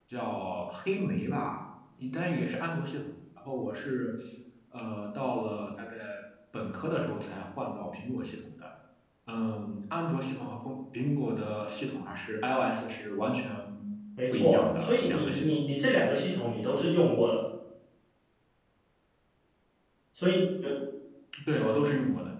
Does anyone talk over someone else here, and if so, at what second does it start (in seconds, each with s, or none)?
14.3 s